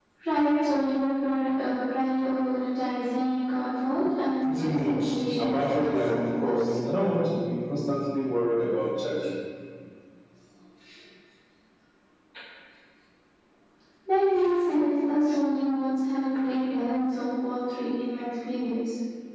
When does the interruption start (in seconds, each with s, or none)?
4.5 s